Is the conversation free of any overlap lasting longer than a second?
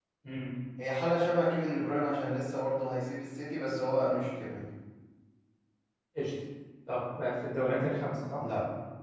Yes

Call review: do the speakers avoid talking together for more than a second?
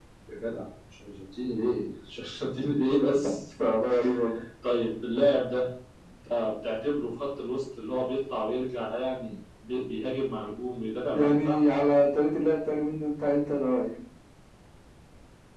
Yes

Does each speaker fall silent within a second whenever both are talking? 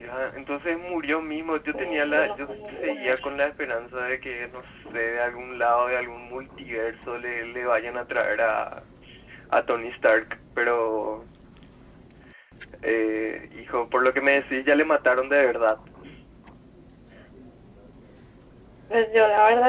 No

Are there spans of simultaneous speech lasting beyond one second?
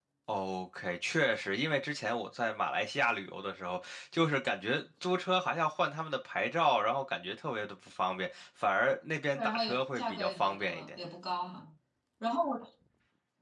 Yes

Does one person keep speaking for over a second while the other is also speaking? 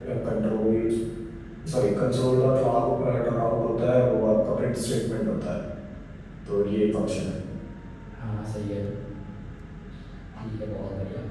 No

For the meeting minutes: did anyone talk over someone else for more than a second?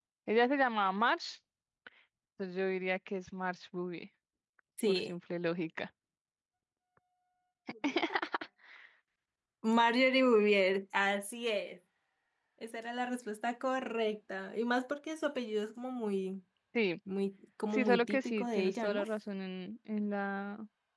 Yes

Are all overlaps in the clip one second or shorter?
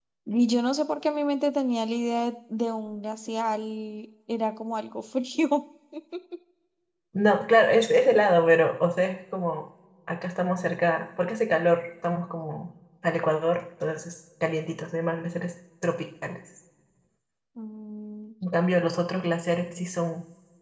Yes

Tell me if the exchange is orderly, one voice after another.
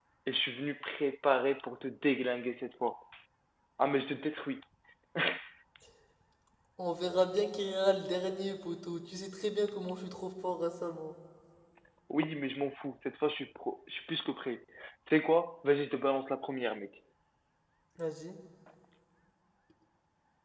Yes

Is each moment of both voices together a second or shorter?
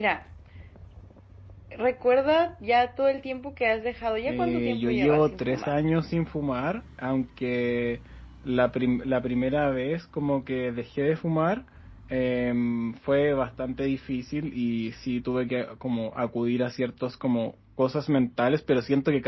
No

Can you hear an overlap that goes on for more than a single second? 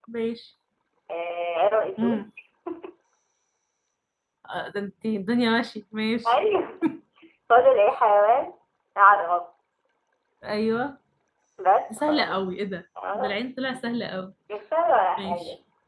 No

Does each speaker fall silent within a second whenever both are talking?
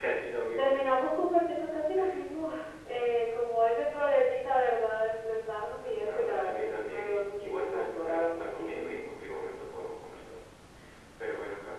No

